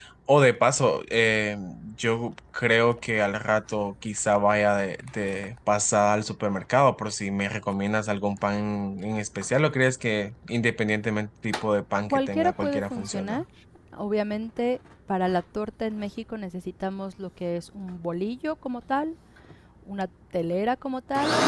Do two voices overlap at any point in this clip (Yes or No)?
Yes